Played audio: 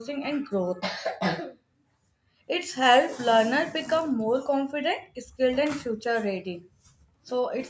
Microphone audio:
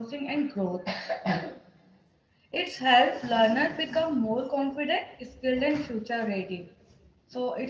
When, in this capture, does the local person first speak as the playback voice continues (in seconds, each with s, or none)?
none